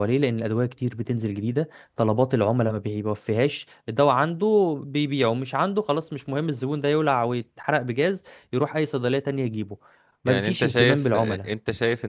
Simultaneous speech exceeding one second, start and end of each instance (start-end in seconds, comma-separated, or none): 10.3-11.5